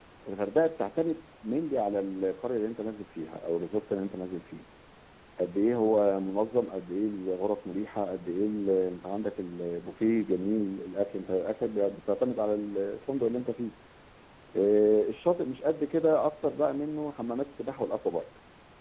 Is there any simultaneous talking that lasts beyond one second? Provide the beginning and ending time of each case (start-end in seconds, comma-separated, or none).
none